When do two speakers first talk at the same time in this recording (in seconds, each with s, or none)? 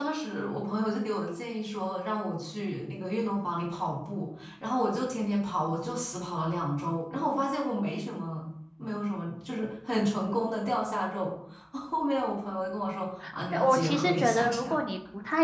13.5 s